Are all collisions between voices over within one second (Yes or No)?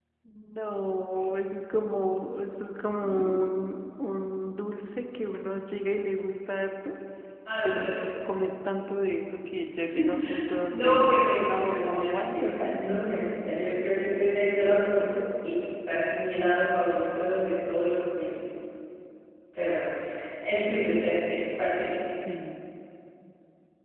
No